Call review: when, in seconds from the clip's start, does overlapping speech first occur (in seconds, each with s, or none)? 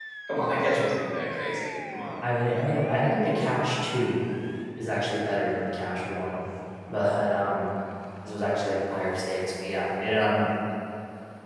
none